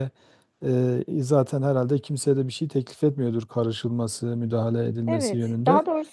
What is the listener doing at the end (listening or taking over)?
taking over